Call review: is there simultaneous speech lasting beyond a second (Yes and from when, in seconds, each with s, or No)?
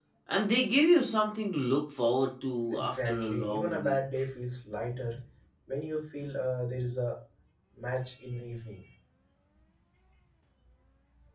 Yes, from 2.7 s